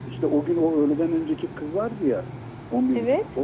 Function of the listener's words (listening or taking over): listening